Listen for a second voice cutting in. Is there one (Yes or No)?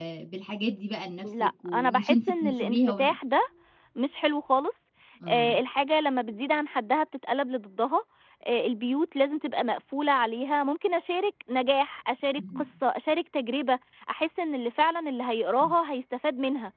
Yes